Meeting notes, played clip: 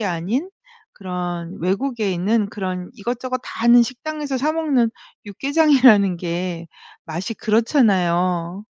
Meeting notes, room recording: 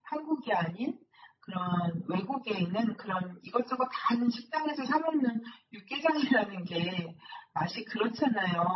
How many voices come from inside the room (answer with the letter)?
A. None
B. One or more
A